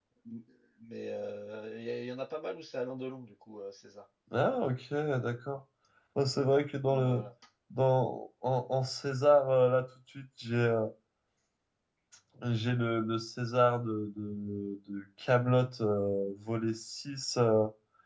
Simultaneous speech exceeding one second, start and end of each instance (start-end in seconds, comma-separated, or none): none